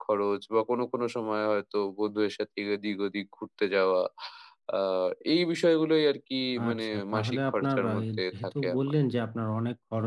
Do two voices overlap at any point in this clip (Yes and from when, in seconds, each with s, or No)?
Yes, from 6.6 s